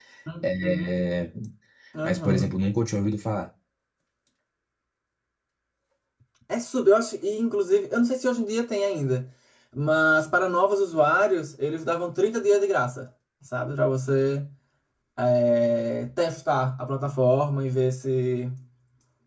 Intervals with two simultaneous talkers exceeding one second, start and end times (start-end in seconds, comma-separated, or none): none